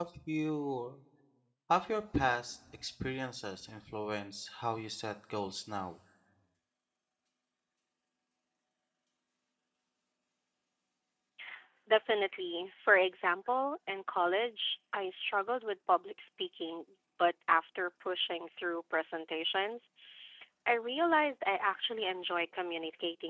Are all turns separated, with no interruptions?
Yes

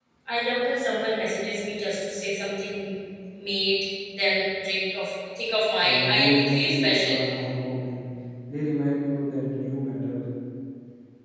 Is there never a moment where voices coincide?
No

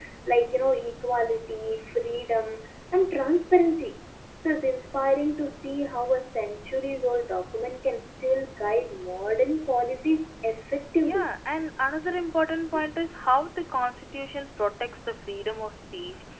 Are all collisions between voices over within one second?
Yes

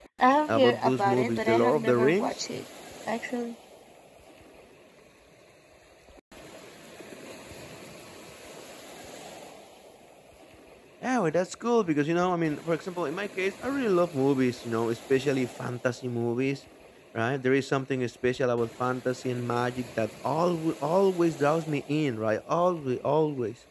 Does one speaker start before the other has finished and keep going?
Yes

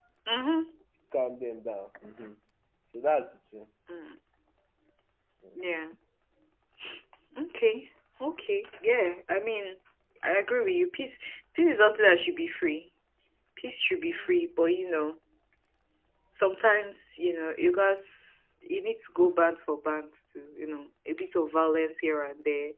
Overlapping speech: No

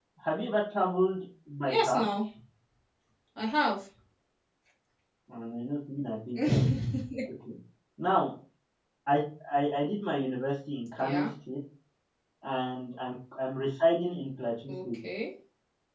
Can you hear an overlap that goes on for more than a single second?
No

